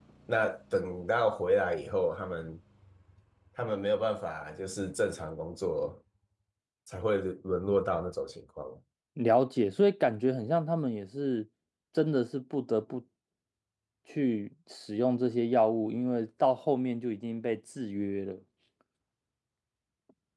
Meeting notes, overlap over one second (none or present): none